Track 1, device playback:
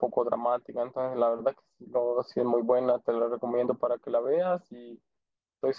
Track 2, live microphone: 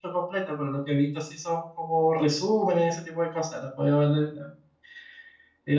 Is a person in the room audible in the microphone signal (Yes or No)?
Yes